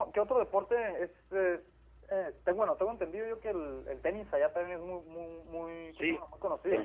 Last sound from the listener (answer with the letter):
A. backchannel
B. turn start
B